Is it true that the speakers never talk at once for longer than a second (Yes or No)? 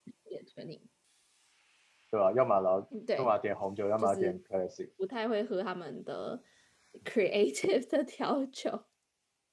Yes